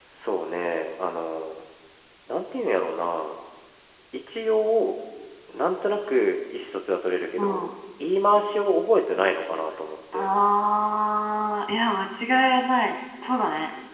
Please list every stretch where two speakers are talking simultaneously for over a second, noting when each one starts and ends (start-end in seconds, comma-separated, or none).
none